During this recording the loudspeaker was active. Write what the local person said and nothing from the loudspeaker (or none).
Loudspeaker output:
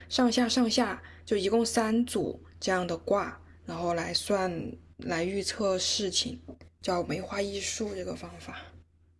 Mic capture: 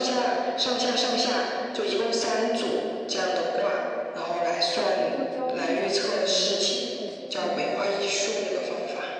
找工作焦虑啊，或者怎么样，有那种心情的时候，